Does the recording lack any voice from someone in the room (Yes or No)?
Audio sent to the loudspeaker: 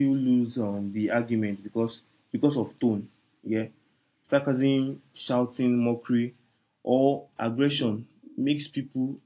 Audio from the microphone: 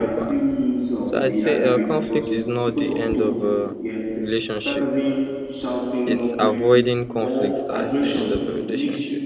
No